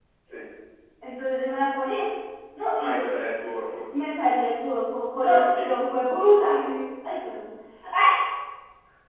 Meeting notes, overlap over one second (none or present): none